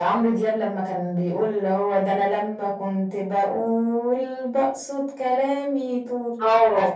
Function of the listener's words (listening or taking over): taking over